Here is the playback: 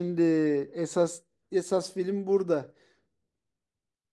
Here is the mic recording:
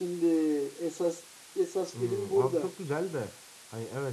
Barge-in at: 2 s

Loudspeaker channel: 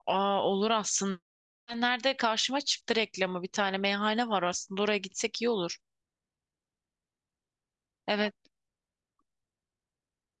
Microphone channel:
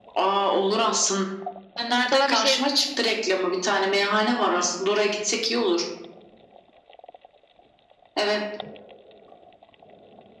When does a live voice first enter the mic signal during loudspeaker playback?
2 s

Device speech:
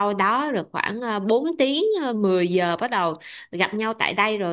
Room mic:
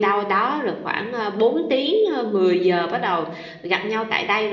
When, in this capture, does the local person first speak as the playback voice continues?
none

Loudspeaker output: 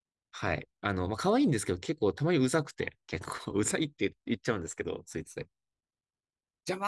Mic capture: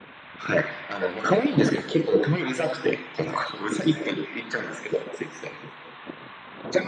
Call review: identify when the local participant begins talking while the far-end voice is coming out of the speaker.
none

